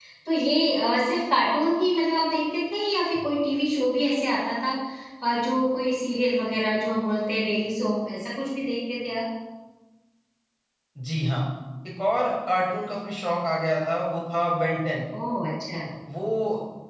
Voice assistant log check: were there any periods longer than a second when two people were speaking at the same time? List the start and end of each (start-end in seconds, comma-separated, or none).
none